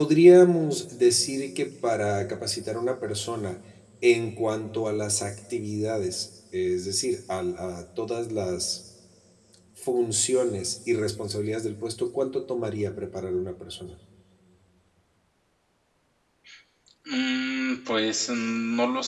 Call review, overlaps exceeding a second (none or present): none